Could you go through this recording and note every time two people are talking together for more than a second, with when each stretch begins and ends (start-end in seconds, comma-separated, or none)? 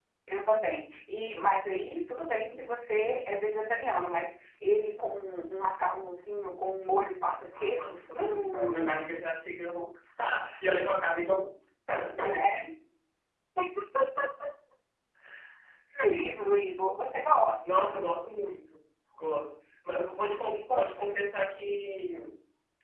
7.5-9.1